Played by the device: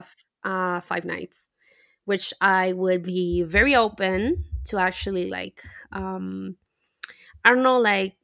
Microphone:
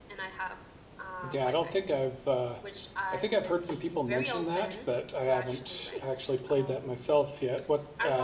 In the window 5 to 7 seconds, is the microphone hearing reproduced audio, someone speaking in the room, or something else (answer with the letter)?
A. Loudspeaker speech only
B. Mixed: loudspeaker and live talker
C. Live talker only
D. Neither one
B